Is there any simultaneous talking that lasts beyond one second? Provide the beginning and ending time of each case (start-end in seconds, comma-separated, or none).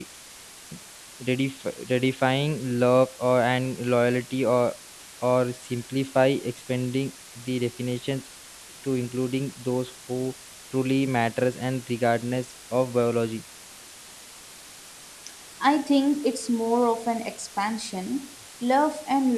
none